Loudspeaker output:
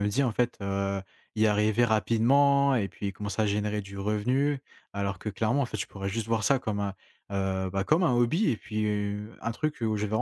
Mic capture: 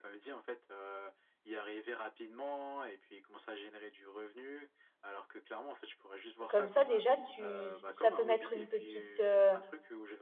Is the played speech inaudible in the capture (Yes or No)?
No